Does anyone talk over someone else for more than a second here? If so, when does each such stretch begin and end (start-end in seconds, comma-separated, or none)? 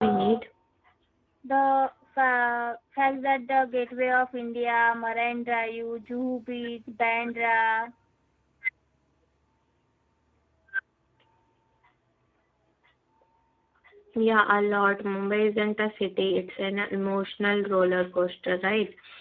none